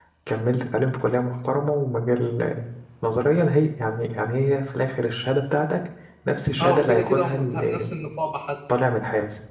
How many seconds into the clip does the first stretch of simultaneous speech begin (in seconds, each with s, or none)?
6.6 s